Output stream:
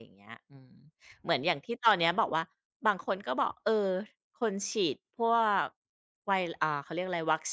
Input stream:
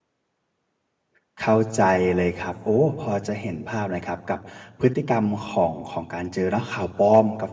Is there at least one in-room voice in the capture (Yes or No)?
Yes